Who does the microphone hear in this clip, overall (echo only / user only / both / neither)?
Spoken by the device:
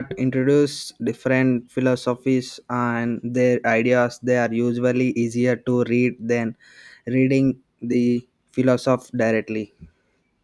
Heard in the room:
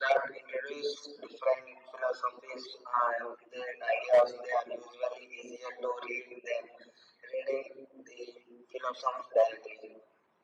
echo only